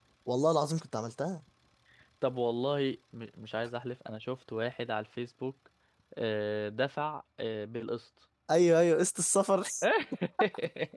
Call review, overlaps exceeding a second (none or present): none